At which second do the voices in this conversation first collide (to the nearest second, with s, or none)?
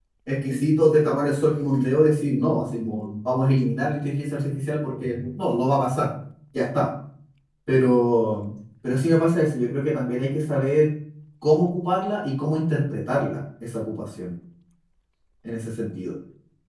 none